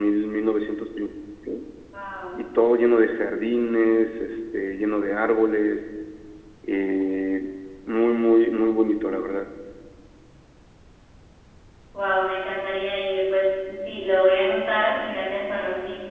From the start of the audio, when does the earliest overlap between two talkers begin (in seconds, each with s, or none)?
none